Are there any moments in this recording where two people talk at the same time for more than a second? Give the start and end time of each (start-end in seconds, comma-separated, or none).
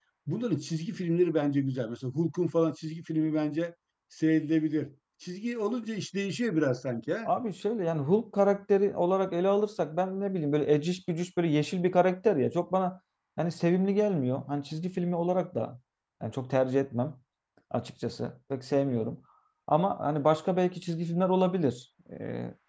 none